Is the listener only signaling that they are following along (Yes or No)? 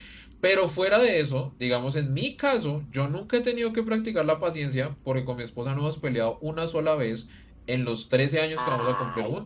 No